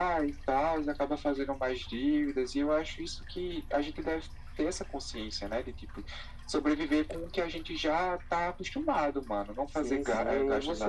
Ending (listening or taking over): taking over